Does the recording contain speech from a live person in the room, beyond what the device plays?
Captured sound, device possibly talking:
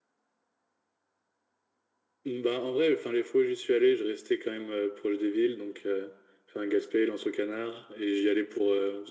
No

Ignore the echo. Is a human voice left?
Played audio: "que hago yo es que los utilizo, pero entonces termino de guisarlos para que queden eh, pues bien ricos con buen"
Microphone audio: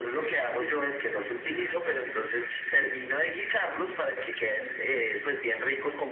Yes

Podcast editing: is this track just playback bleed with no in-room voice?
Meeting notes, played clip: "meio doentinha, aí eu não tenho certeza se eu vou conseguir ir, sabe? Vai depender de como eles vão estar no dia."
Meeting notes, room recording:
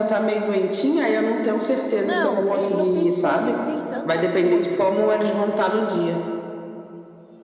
No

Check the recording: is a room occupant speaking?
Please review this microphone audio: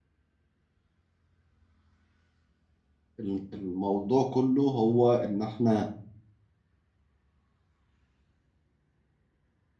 Yes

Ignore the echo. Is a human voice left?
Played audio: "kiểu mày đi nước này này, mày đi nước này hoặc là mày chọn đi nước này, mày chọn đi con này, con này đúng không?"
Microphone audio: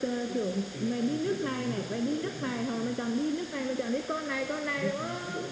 Yes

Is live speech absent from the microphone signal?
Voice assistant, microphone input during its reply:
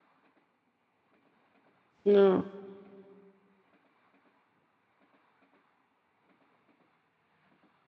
No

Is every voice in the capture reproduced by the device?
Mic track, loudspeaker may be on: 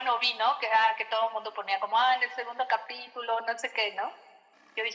Yes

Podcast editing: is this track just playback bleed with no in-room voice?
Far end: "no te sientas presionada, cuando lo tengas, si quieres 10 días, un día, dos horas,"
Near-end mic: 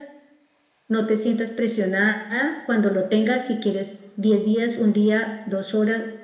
Yes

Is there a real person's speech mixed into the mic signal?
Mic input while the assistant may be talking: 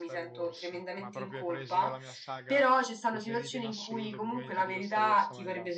Yes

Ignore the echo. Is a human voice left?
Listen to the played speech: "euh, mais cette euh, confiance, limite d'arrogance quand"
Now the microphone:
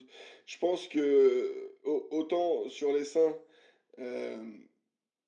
Yes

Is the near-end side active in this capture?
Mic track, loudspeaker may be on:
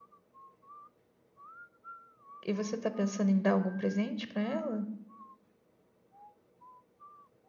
Yes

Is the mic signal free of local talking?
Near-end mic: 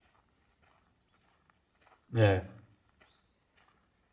No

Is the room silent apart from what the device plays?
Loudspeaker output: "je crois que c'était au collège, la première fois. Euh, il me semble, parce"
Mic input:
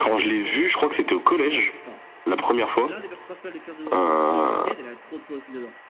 No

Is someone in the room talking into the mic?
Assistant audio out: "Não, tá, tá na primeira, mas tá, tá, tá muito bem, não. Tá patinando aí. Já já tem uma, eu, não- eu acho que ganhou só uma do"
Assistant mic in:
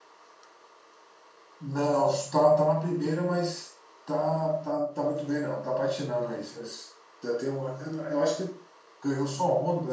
No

